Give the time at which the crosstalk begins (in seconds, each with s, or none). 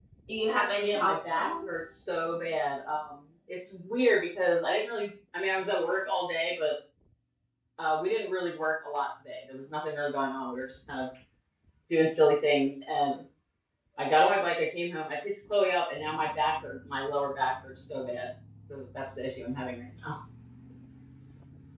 0.6 s